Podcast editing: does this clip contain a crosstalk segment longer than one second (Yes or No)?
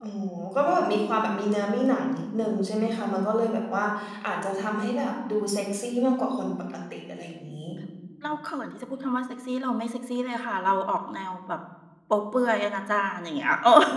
No